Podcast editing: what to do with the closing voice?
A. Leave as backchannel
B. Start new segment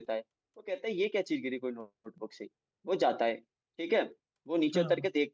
A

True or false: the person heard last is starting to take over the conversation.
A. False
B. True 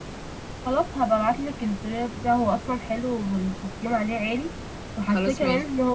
A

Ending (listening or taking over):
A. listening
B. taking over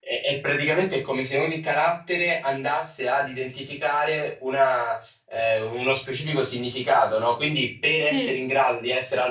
A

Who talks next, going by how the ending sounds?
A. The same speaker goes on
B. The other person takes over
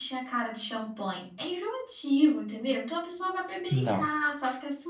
A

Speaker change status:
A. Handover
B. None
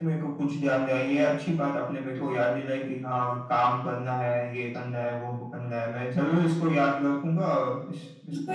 A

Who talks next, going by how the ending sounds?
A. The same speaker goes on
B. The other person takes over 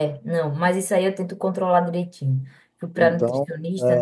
B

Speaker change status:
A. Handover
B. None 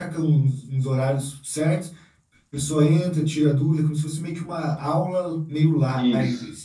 A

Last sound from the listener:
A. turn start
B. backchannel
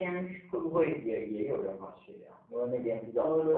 A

